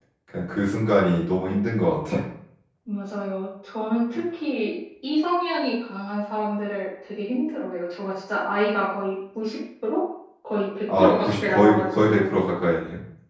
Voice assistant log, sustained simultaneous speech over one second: present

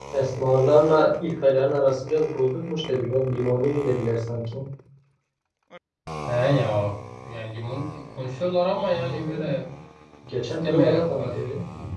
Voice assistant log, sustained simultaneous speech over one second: present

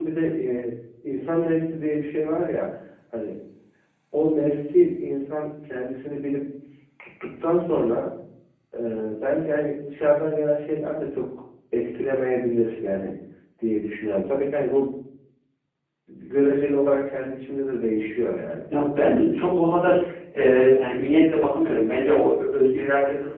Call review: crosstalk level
none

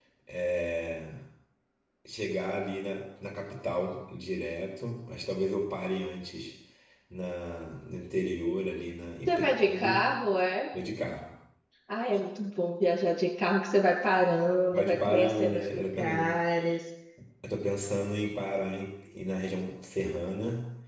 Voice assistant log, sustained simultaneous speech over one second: present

